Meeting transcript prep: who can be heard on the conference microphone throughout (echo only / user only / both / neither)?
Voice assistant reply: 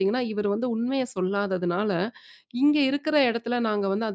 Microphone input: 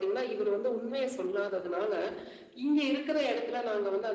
echo only